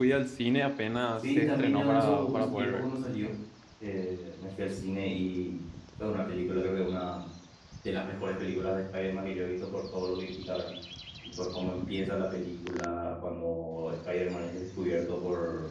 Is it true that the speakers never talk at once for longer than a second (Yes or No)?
No